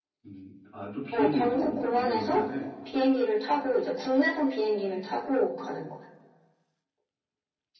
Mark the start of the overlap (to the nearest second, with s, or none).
1 s